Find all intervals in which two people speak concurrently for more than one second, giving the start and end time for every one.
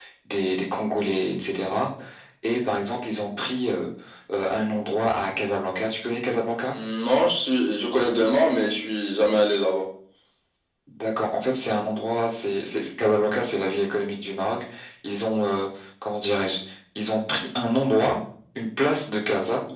none

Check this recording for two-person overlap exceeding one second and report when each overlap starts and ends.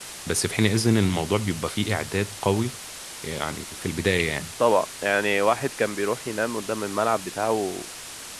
none

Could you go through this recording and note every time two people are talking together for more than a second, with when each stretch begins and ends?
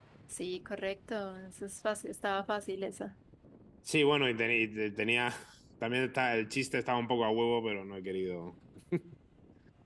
none

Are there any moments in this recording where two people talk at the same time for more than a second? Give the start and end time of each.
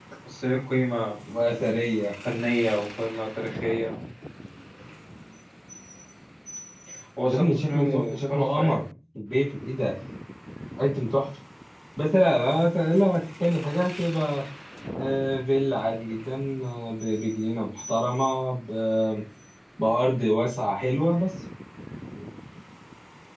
7.2-8.8

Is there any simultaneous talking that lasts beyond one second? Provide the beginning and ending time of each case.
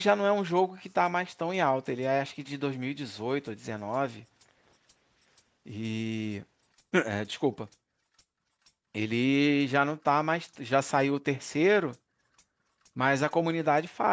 none

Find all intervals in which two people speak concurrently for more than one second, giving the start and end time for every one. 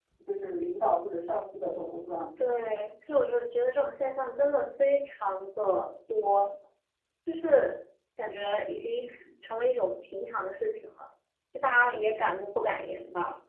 none

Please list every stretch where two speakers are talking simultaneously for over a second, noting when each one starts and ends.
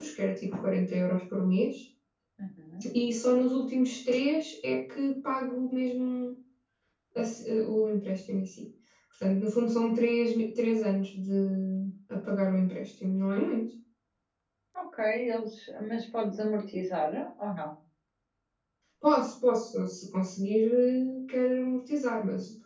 none

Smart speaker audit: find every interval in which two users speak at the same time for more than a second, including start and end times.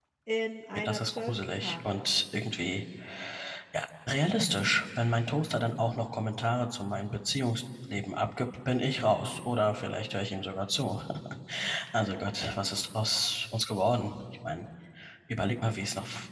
0.7-2.1

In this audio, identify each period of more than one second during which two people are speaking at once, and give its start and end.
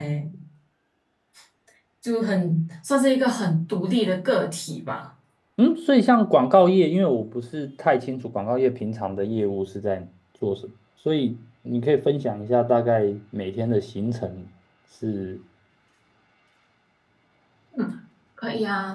none

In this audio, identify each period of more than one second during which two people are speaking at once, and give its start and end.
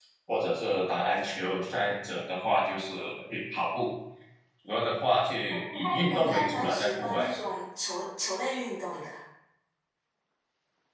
5.5-7.2

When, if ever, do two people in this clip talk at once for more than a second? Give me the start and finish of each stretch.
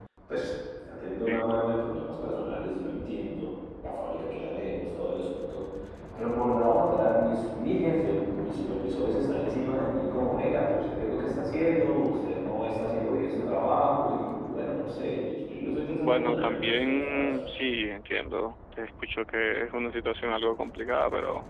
16.0-17.3

